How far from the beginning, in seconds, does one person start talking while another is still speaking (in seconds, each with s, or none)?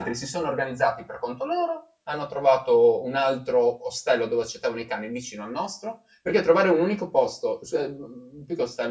none